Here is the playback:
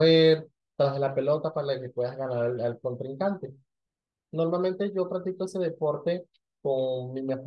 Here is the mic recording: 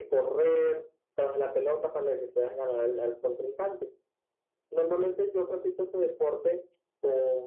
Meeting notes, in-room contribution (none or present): none